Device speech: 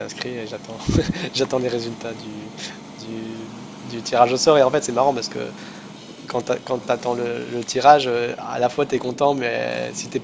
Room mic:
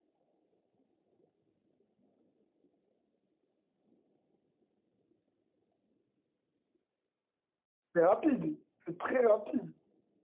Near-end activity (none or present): present